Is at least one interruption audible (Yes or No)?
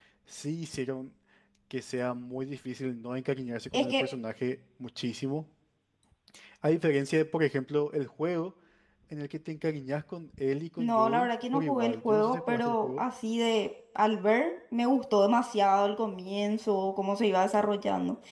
Yes